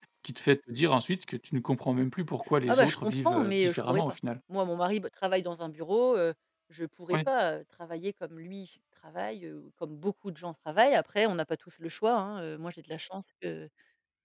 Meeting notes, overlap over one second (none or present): present